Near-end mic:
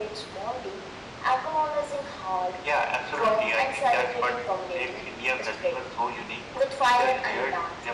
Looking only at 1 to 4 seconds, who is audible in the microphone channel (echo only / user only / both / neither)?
echo only